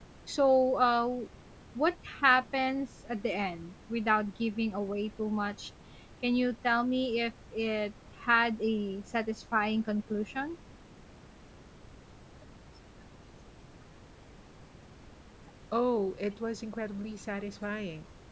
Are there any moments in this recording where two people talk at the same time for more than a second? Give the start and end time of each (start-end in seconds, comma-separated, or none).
none